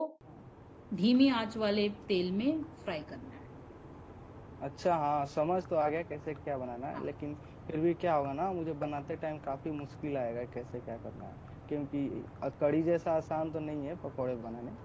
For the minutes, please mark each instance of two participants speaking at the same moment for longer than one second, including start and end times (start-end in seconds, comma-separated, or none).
none